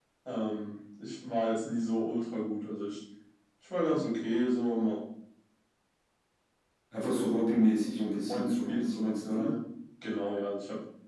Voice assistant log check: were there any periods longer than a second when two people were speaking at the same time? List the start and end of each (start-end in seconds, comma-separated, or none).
7.9-9.5